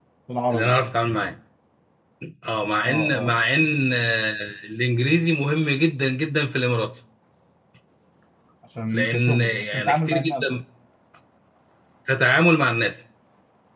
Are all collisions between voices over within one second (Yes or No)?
No